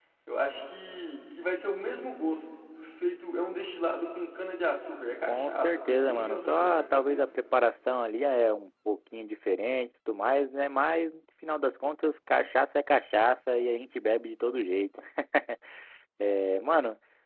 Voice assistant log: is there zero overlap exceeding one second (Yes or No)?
No